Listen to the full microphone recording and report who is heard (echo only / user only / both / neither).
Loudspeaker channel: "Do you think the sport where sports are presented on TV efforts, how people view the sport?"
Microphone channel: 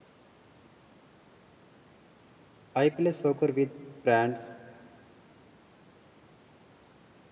user only